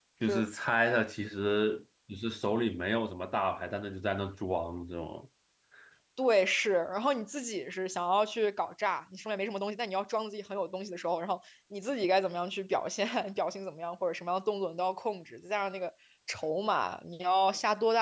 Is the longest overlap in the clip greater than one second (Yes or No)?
No